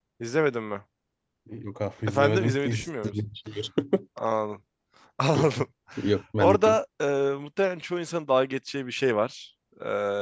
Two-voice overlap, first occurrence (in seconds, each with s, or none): 2.1 s